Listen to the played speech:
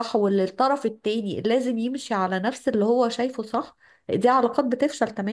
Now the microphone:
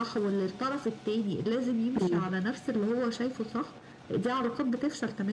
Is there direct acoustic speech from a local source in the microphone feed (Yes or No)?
Yes